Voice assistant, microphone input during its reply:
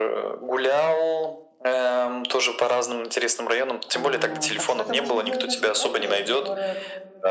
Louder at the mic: echo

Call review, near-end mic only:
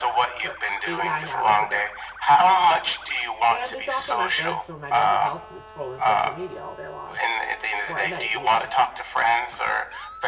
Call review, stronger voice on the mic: echo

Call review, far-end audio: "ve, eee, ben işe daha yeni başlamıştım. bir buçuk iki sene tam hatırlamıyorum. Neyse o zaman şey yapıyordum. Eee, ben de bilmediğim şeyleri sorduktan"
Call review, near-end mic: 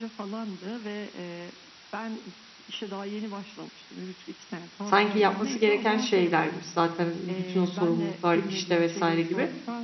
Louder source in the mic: user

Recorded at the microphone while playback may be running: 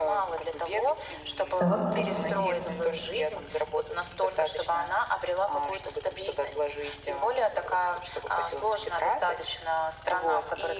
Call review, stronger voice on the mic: user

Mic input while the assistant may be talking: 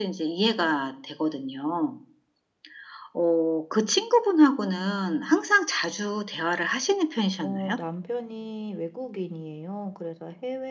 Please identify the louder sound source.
echo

